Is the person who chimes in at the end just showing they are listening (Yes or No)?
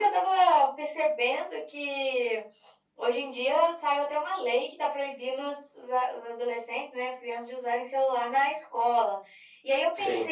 Yes